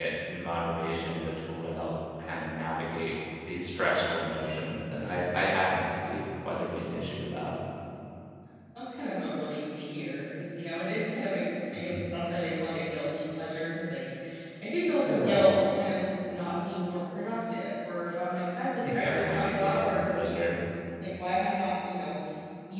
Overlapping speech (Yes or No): Yes